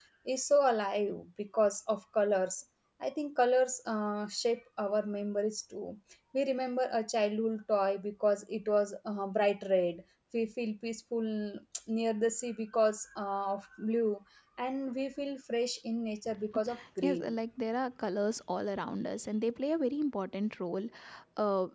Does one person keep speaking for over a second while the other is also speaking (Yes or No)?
No